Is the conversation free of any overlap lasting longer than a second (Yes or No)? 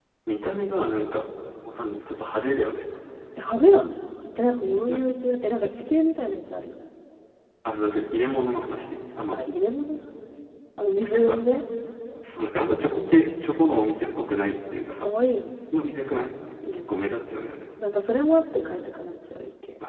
Yes